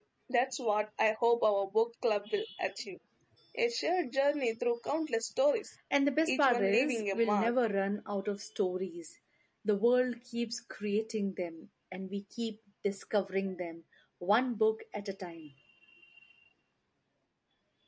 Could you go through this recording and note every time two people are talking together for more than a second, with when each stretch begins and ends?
6.2-7.5

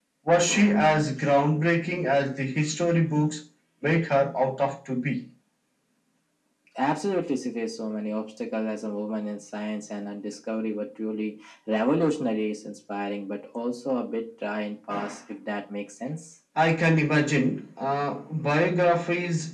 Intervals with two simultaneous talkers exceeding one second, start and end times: none

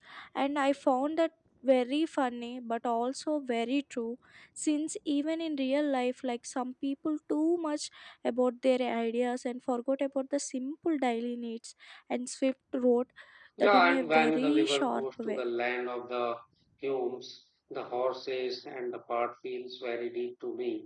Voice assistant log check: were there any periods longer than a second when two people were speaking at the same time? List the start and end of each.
13.6-15.4

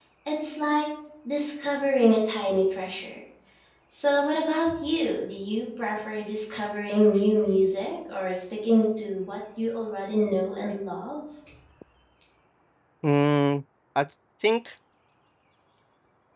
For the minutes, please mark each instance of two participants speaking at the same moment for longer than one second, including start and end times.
none

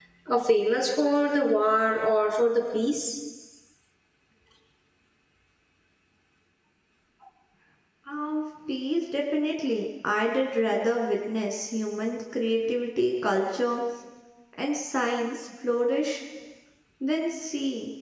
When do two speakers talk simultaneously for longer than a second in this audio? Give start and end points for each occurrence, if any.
none

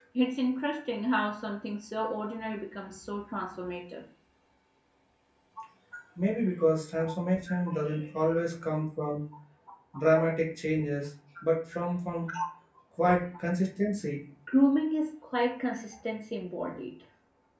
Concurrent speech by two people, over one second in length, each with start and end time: none

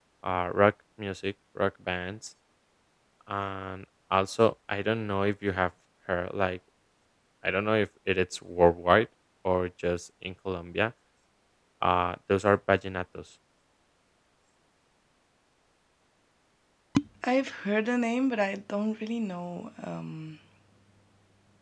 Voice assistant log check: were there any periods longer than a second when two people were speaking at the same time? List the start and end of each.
none

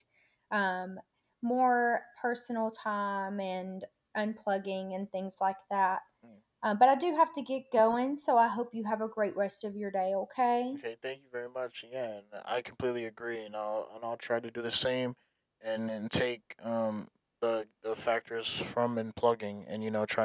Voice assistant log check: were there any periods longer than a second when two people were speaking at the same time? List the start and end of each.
none

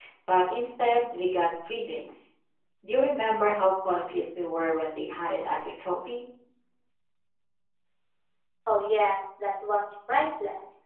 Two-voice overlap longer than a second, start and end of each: none

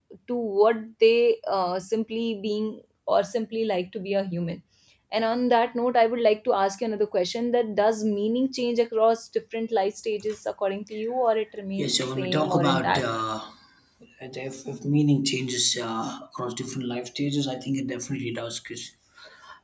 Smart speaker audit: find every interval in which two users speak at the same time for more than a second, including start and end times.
11.8-13.0

